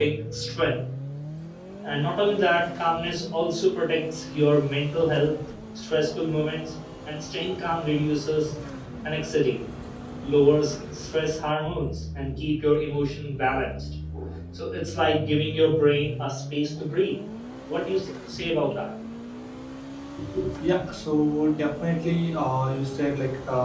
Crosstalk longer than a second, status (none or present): none